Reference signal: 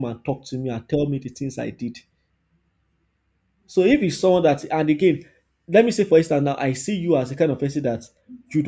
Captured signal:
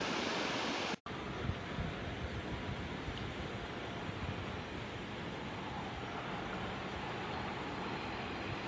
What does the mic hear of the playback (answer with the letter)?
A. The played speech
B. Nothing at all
B